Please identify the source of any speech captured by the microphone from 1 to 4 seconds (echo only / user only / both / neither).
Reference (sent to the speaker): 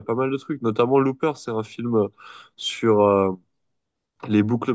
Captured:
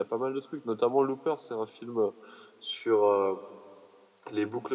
echo only